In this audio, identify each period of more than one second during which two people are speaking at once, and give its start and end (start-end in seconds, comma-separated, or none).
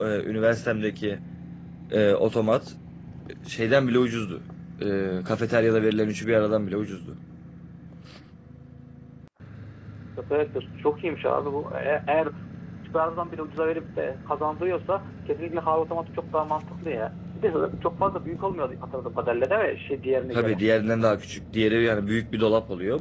none